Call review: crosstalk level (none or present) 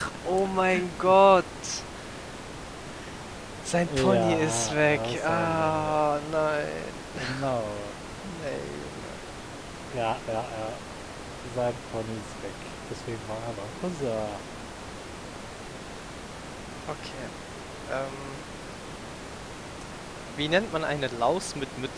present